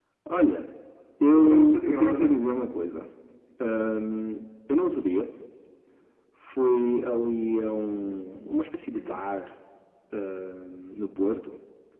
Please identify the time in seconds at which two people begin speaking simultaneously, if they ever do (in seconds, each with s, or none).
1.4 s